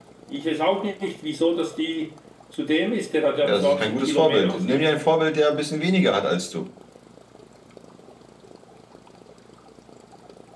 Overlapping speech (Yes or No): Yes